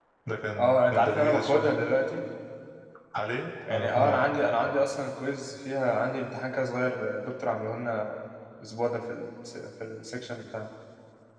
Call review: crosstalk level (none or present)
present